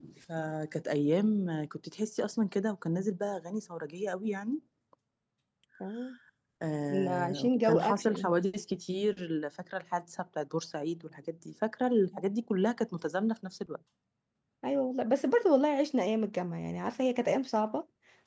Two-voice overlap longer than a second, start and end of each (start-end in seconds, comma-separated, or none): 6.9-8.3